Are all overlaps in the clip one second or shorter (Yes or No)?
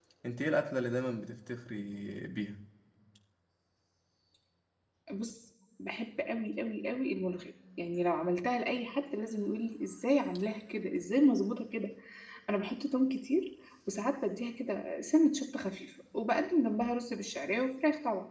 Yes